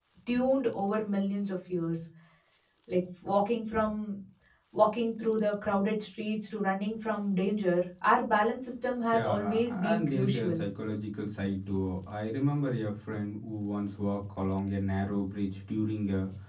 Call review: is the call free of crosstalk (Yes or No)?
No